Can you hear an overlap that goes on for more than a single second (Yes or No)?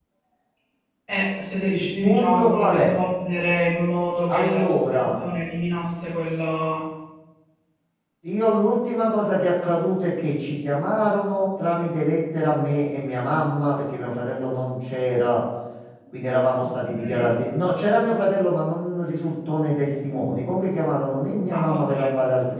Yes